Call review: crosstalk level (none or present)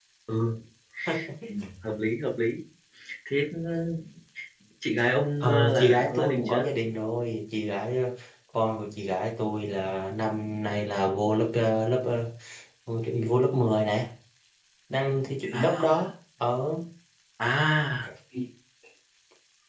present